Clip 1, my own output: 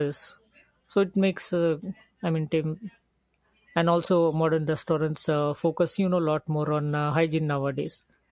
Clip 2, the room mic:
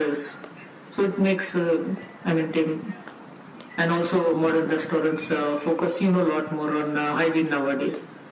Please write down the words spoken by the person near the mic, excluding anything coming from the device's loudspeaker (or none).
none